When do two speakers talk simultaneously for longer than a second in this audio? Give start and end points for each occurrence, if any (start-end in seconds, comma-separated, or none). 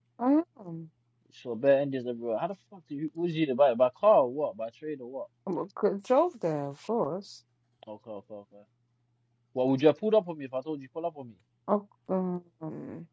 none